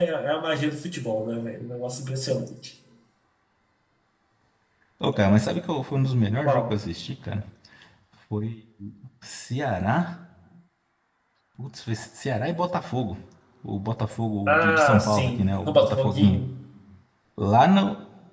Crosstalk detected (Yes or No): Yes